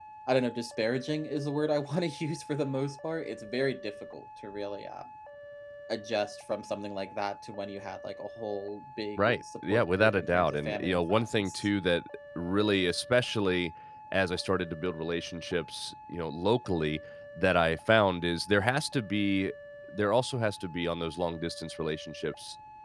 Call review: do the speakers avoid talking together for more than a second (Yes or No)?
No